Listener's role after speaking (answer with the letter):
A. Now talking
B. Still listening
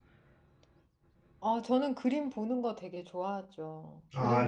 B